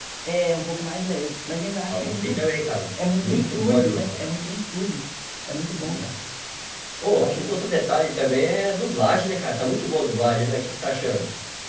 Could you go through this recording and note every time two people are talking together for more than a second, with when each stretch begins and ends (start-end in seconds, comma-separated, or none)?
3.0-4.2